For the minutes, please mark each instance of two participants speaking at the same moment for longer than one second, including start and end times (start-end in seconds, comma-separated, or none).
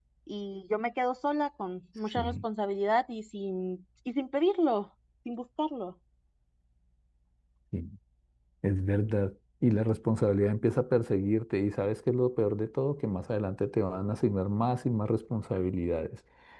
none